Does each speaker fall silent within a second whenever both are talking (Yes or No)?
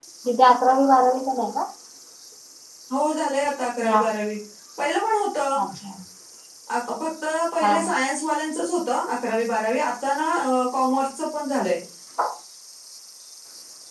Yes